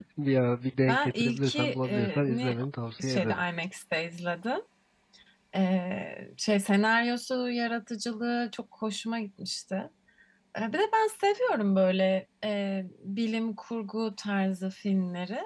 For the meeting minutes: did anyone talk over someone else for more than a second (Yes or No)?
Yes